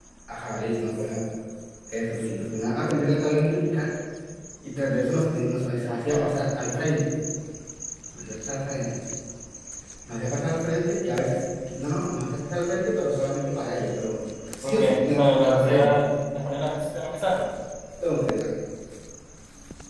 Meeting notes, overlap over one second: present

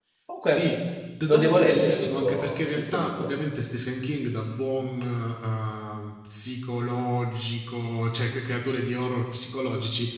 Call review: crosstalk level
present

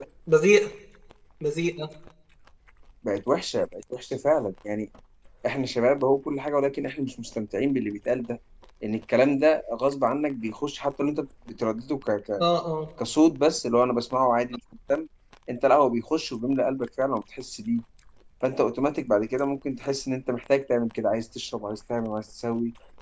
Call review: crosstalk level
none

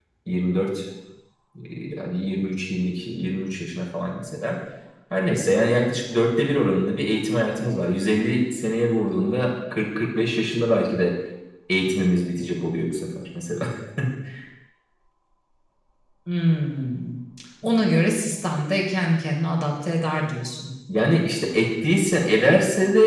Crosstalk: none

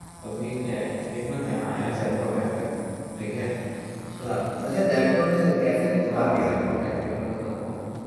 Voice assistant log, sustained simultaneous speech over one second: none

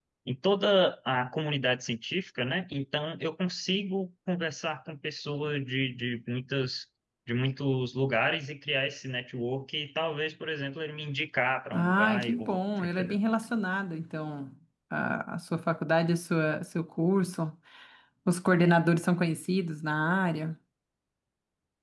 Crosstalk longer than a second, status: present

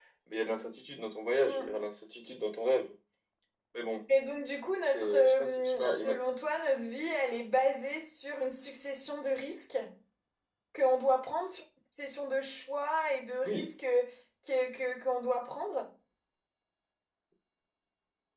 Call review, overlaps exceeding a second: present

